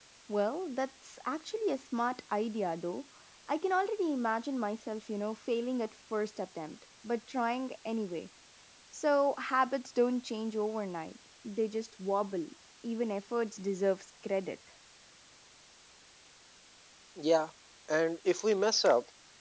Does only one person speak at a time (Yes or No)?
Yes